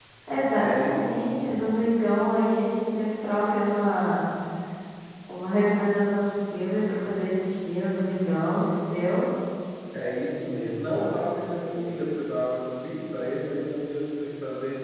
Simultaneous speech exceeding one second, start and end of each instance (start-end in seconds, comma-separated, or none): none